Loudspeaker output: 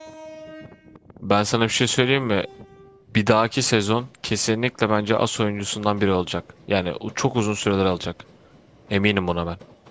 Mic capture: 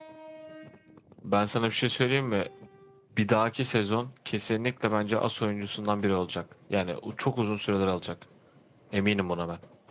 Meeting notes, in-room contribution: none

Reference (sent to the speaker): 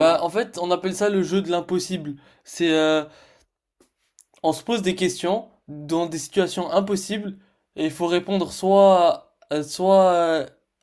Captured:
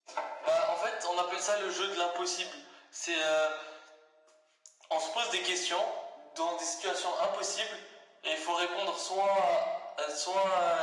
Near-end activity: none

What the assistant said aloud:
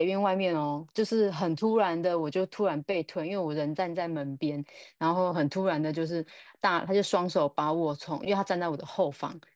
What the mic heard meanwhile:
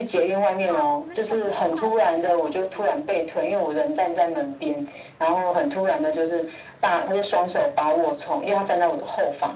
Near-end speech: present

